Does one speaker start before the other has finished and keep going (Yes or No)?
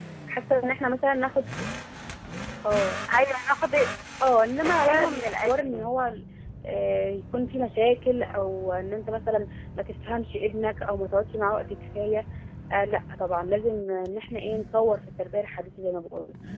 Yes